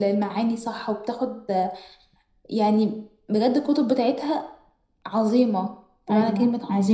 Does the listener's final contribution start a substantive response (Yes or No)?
Yes